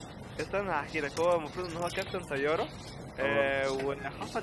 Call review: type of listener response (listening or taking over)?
listening